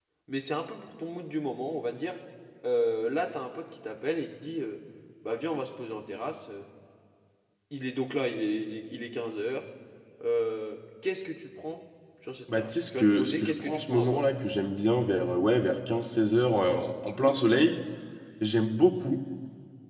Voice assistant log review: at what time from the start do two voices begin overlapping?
12.5 s

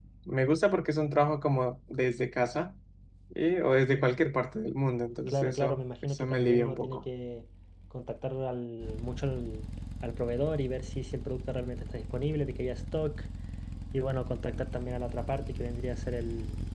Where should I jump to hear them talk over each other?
5.3 s

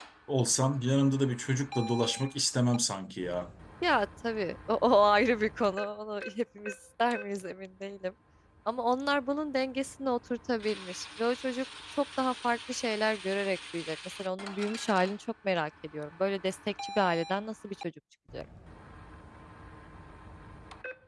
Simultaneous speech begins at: none

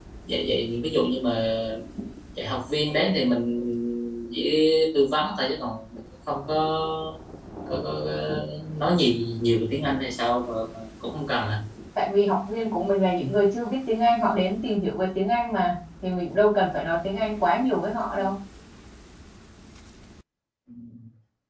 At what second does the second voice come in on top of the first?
none

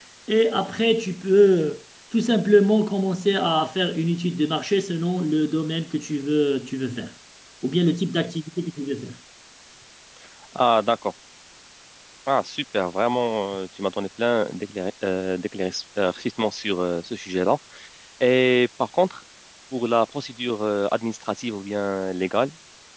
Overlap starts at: none

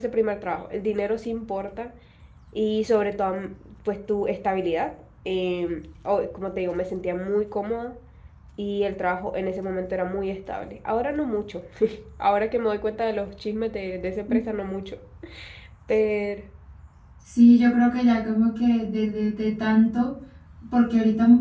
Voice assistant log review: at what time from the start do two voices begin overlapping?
none

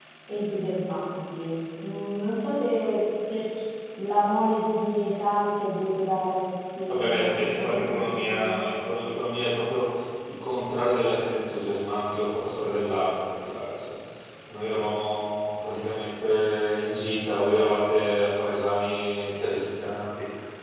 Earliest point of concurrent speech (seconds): 6.9 s

